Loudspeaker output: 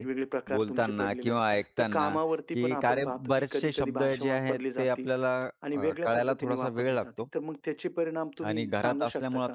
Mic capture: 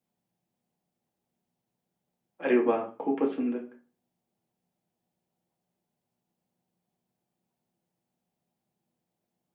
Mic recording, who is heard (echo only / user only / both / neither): user only